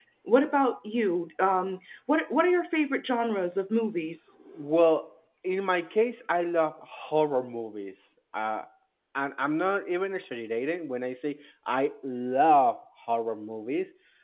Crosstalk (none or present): none